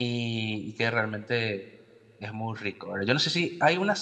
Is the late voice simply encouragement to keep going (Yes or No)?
Yes